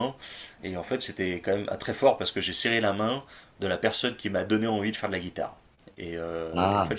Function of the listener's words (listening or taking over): listening